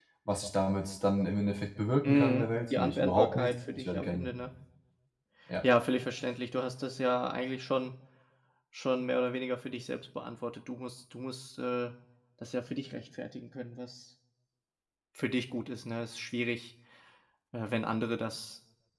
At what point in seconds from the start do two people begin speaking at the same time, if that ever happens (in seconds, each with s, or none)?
2.0 s